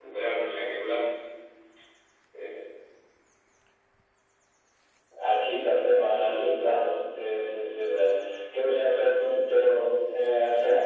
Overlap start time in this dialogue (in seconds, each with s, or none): none